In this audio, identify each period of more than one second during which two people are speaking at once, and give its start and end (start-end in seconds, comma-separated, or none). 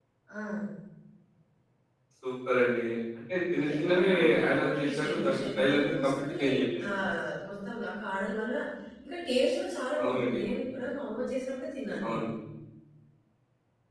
3.8-6.4